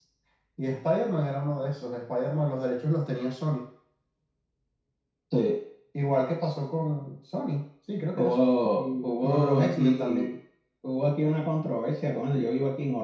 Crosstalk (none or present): present